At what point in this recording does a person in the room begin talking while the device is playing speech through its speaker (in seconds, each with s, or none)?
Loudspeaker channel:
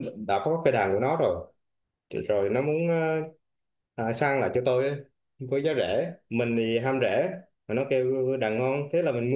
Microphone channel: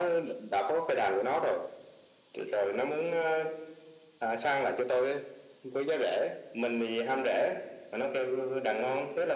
none